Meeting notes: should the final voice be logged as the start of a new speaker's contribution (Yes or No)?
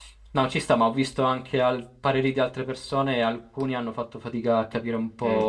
No